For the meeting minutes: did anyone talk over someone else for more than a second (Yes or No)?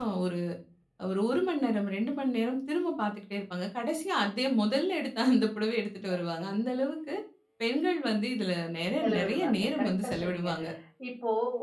Yes